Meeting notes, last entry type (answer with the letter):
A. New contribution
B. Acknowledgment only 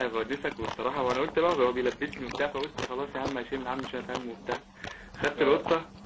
B